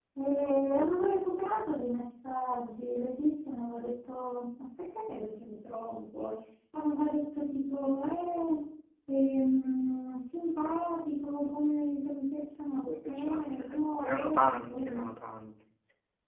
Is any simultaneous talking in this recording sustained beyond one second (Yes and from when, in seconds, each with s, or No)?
Yes, from 12.8 s